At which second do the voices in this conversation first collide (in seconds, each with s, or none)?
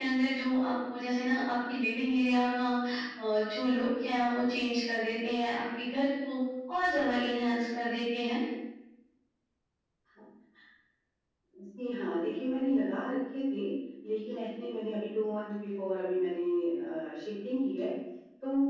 none